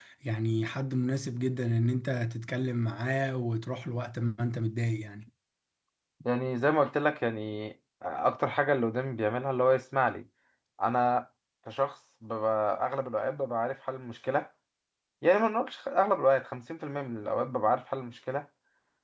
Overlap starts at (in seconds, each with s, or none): none